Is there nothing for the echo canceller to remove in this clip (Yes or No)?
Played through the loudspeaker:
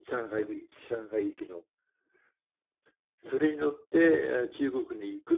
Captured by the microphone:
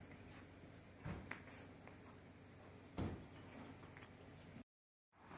Yes